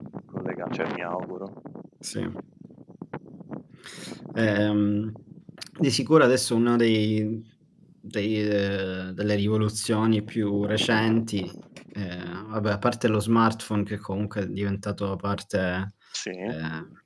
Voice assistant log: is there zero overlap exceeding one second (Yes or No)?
Yes